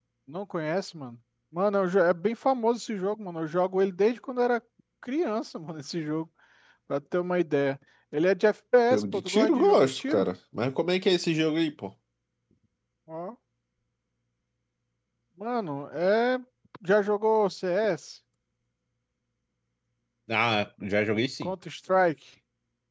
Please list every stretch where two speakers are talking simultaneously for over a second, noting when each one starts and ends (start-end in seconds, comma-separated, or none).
8.9-10.3